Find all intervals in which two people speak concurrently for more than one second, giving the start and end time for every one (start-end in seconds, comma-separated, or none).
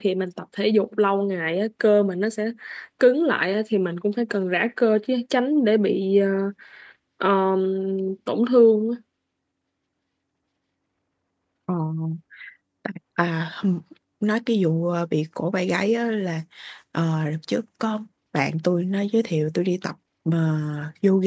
none